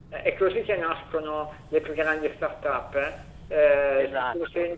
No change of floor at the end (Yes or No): Yes